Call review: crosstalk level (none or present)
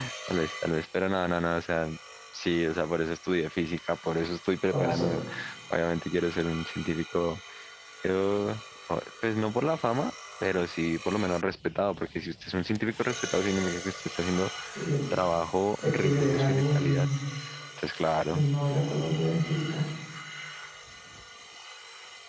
present